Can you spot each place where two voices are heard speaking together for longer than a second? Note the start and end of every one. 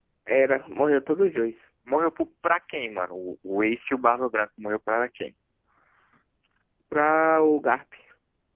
none

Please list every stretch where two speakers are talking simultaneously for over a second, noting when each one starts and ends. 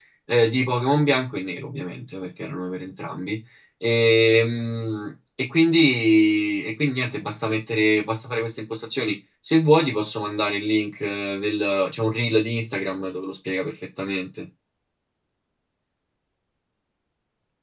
none

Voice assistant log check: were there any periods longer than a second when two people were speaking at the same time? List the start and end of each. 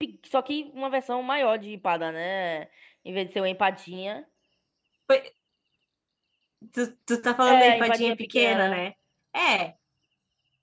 7.5-8.8

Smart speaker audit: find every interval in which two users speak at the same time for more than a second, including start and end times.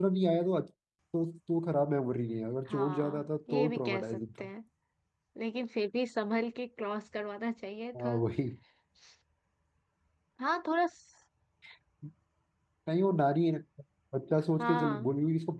2.7-4.5

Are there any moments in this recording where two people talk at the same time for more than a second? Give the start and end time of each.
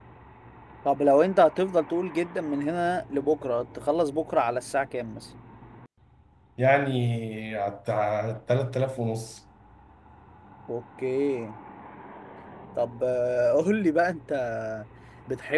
none

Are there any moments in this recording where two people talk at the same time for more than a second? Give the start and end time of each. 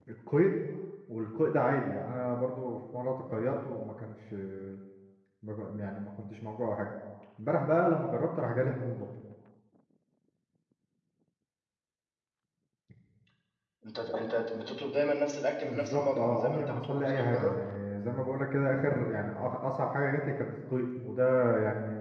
15.6-17.6

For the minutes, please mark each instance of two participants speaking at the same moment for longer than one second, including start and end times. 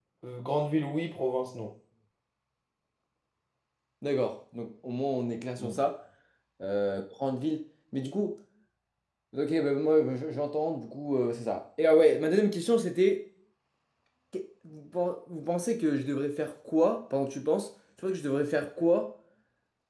none

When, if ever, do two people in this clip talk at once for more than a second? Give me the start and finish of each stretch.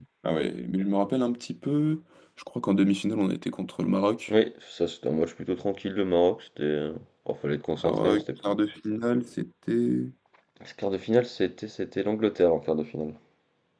none

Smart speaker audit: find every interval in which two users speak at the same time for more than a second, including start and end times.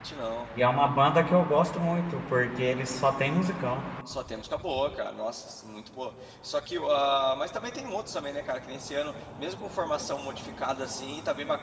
none

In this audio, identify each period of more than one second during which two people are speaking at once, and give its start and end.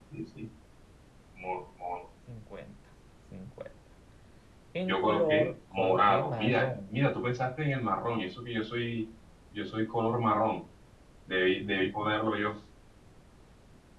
4.8-7.0

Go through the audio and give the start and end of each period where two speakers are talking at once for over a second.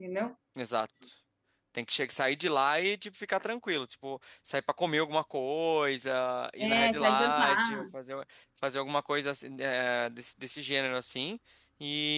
6.6-7.8

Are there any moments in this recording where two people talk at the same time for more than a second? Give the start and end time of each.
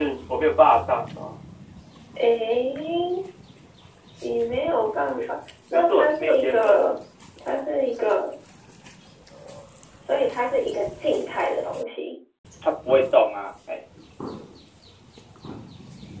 5.7-6.9

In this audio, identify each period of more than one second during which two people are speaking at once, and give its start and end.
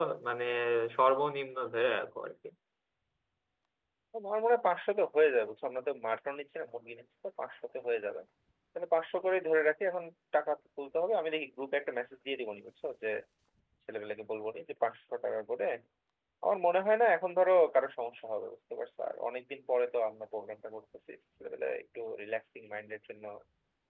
none

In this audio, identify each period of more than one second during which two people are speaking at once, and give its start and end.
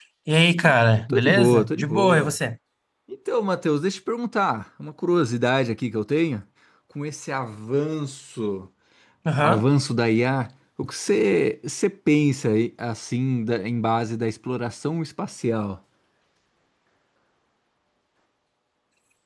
1.1-2.4

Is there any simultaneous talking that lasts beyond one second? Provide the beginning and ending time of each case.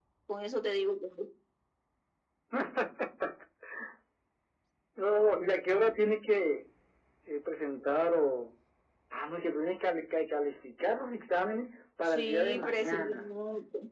12.0-13.3

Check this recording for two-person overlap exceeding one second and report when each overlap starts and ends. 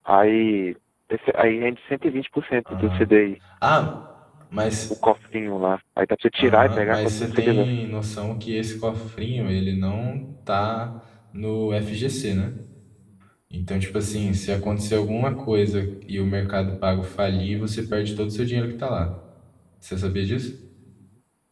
6.4-7.7

